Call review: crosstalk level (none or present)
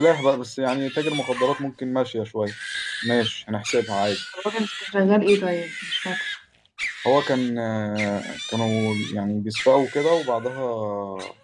none